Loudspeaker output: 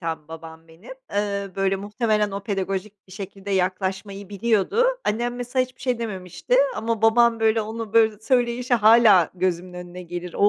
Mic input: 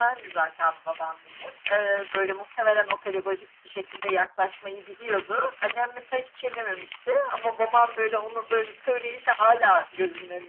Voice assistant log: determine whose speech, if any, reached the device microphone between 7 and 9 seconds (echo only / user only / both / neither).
echo only